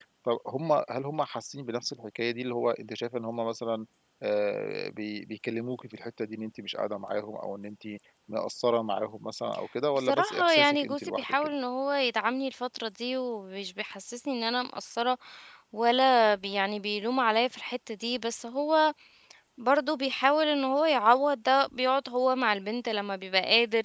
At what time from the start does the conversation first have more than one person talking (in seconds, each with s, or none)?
9.9 s